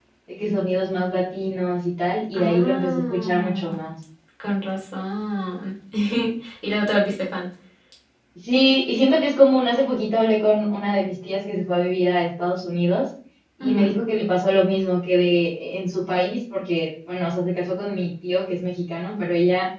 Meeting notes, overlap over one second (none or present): present